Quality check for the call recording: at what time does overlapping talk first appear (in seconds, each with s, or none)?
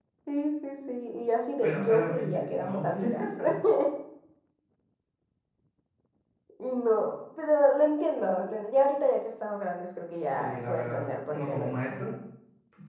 1.6 s